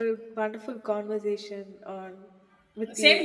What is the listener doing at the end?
taking over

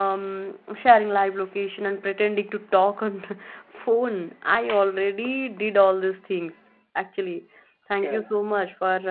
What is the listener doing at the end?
listening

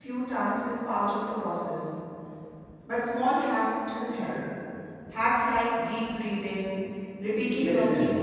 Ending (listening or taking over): listening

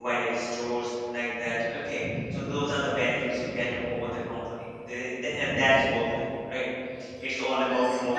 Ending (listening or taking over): taking over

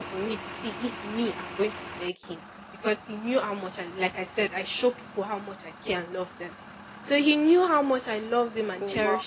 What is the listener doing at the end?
listening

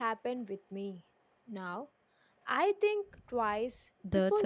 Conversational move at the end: taking over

